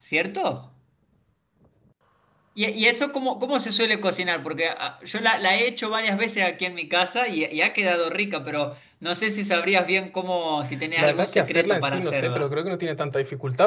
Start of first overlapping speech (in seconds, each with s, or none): 11.0 s